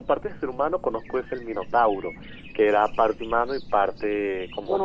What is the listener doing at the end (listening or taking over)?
taking over